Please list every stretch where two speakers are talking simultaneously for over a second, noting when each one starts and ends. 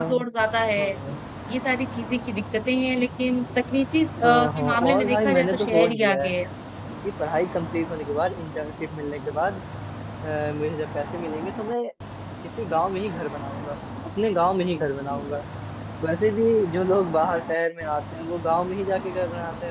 4.2-6.3

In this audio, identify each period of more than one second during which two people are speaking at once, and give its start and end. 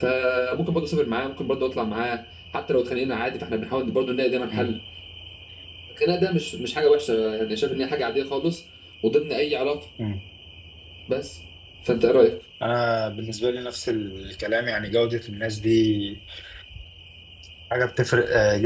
none

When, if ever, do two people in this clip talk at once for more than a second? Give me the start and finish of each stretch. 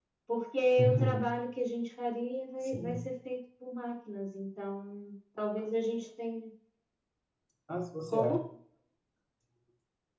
none

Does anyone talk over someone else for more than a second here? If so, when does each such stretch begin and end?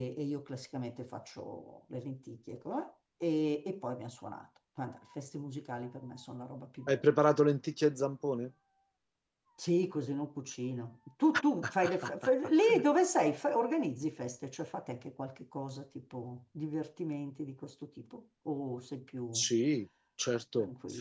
none

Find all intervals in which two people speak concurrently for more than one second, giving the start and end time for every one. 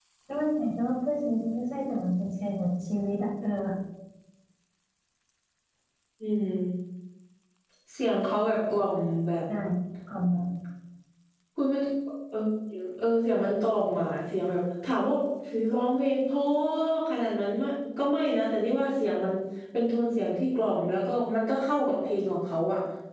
none

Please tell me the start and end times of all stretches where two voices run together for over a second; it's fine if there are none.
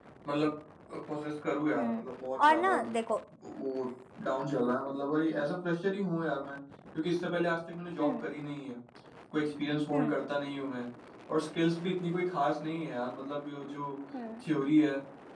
none

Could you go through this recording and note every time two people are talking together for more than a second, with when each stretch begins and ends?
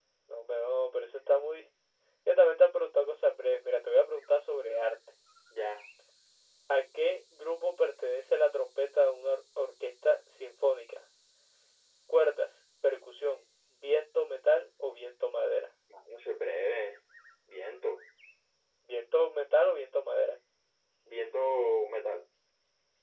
none

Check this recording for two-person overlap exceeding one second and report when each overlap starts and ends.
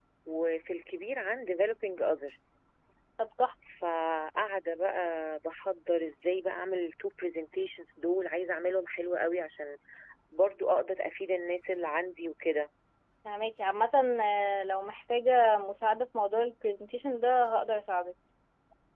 none

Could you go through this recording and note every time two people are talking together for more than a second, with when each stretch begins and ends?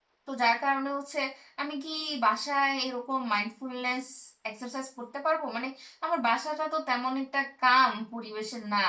none

